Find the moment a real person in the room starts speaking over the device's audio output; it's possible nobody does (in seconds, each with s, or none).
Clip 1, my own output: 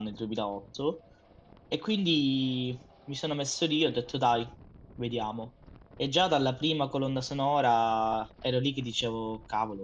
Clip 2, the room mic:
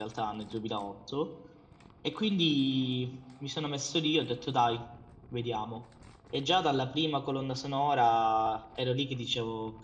none